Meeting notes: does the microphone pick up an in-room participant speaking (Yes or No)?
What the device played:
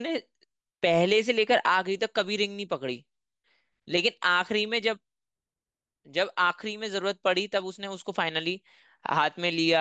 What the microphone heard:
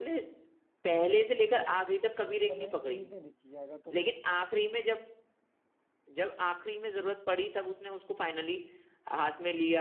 Yes